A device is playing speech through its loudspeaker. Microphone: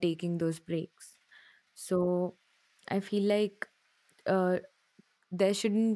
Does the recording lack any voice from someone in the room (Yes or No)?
No